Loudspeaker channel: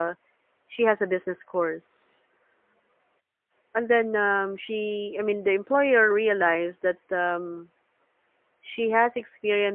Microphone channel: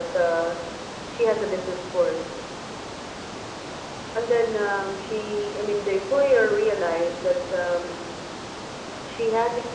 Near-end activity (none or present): none